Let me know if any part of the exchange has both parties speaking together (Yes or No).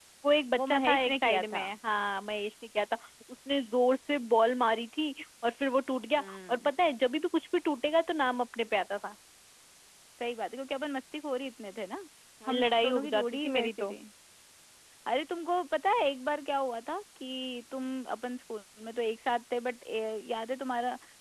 Yes